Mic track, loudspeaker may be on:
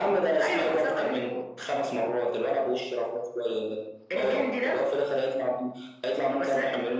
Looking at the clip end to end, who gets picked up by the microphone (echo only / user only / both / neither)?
echo only